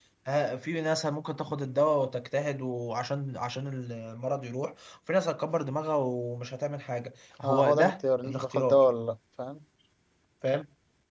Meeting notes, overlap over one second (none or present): present